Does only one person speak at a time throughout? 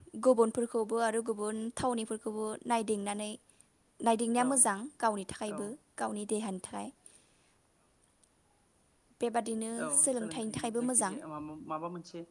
No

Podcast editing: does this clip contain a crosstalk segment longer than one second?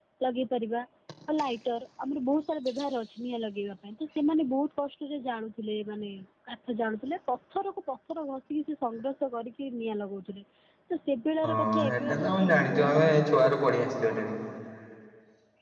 Yes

